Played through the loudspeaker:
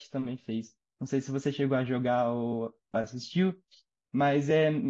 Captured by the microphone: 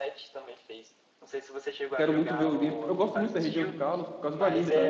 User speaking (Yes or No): Yes